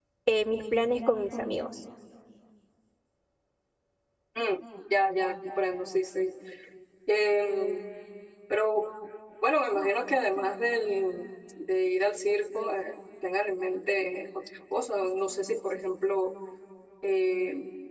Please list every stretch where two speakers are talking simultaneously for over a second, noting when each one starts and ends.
none

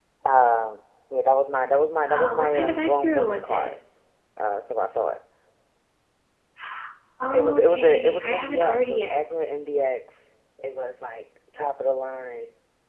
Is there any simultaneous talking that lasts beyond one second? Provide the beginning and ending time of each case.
2.1-3.7, 7.3-9.7

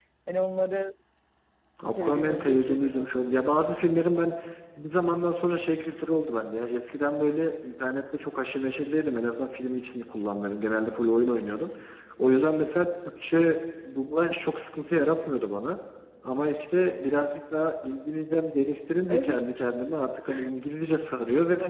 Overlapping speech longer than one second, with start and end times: 1.9-3.5

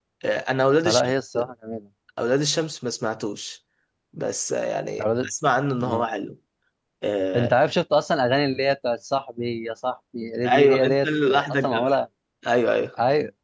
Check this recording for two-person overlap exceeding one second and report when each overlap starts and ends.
10.4-11.9

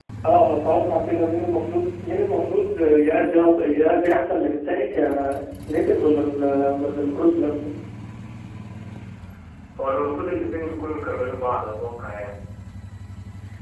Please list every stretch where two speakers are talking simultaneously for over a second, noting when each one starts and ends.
none

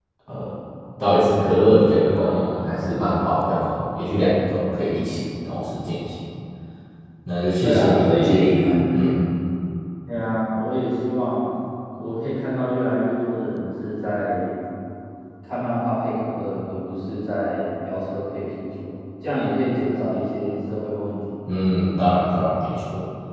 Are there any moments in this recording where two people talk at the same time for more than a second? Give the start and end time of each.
7.6-9.1

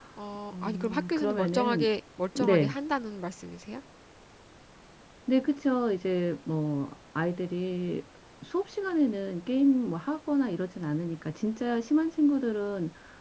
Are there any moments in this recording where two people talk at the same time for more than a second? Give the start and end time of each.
0.5-1.9

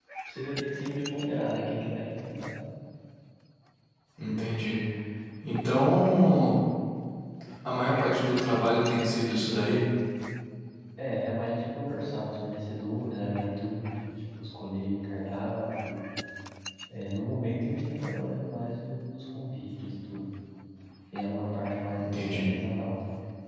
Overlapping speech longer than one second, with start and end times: none

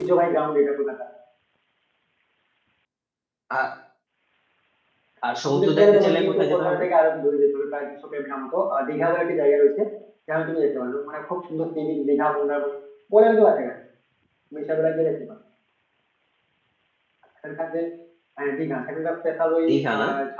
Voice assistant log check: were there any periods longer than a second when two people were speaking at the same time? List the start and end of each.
5.4-6.8

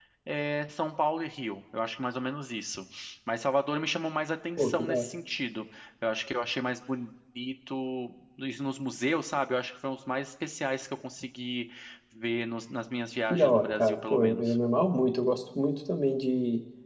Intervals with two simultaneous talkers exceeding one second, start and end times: 13.3-14.6

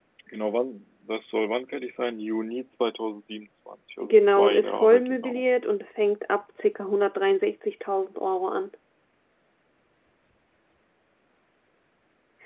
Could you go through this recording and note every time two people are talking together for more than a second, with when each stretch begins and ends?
4.0-5.4

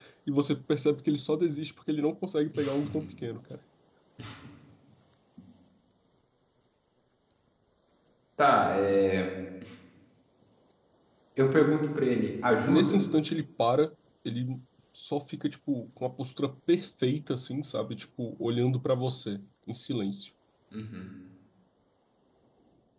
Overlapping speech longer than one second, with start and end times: none

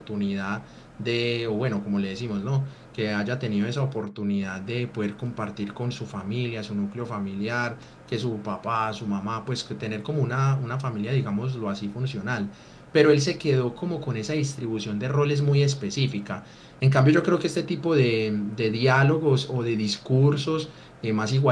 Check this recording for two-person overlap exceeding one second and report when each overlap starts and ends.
none

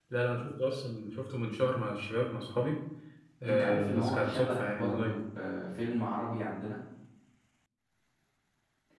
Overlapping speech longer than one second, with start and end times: 3.4-5.2

